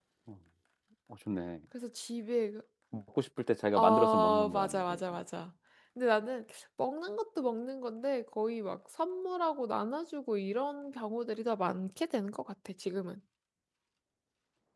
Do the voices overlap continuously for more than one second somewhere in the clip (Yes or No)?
Yes